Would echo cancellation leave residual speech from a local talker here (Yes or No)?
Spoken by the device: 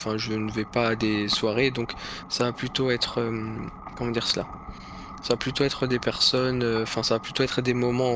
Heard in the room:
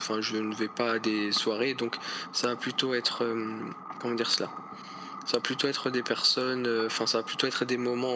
No